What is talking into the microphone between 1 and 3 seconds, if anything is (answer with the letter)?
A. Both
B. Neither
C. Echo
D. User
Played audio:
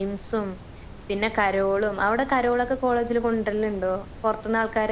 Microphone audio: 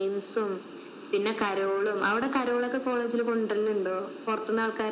C